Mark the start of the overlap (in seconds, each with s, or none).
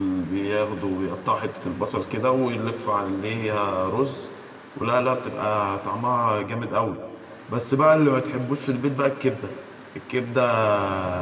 none